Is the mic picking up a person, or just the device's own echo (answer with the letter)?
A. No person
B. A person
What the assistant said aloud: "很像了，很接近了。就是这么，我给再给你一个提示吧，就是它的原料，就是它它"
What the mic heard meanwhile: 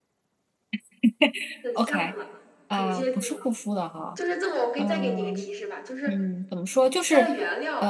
B